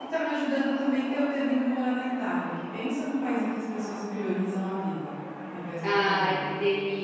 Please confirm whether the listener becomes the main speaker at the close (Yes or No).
Yes